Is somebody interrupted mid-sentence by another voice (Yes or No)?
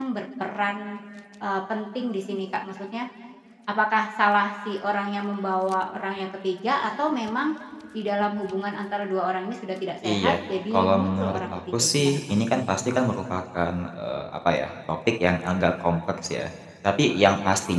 Yes